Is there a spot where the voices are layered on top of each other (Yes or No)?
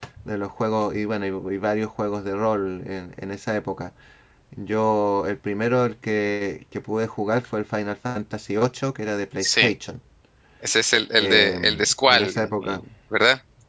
Yes